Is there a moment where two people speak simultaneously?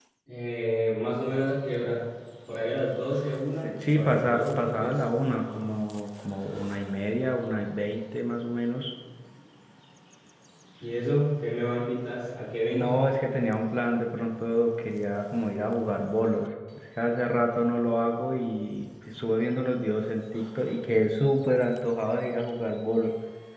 Yes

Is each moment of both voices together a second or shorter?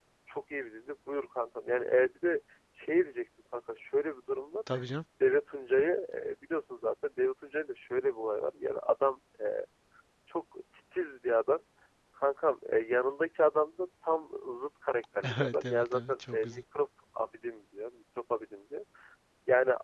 No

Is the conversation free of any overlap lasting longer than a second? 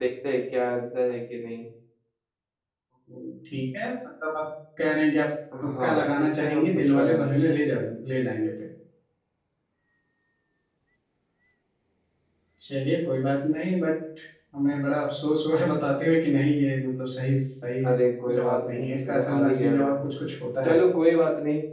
No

